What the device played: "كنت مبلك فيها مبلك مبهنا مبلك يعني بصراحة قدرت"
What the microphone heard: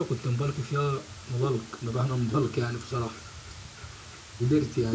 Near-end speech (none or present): none